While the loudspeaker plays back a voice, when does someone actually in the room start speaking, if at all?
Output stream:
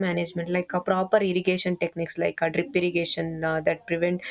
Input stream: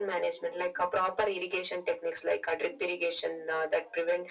none

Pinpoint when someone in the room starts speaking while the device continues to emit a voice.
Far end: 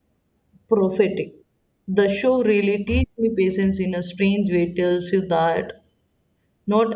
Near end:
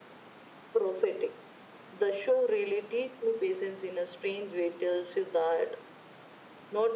none

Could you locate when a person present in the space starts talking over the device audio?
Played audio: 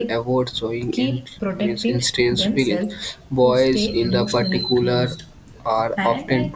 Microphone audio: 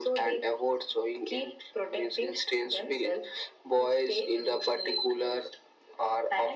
none

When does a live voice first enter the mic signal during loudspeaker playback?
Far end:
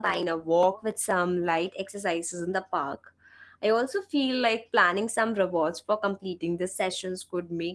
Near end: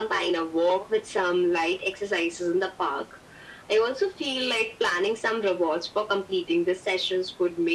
none

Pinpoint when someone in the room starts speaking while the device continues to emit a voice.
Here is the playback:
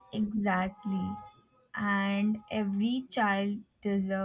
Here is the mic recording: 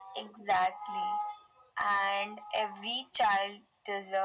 none

